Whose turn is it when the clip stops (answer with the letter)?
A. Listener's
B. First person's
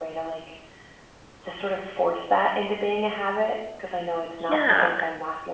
B